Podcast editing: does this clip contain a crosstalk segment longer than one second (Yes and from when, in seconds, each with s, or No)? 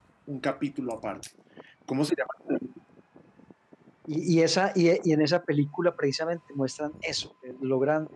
No